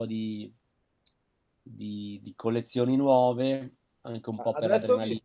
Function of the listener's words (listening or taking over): taking over